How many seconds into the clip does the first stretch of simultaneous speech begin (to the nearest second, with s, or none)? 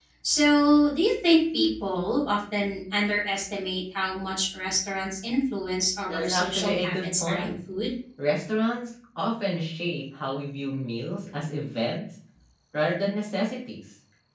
6 s